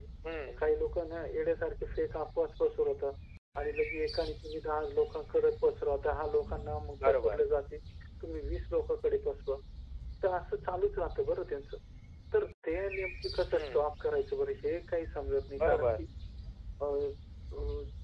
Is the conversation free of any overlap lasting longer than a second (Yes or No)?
Yes